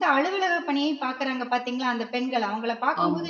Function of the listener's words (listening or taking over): listening